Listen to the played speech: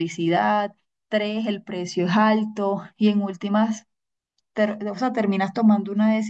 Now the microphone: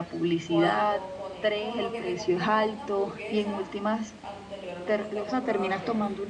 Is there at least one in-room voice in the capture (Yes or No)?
Yes